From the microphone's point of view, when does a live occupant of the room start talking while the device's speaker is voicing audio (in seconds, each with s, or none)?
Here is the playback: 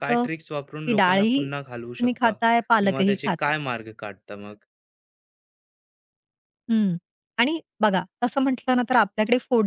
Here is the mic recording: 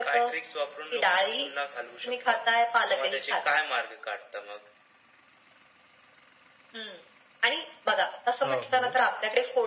8.4 s